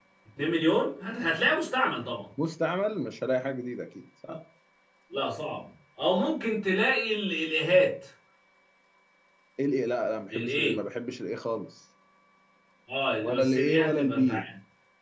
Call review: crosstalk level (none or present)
present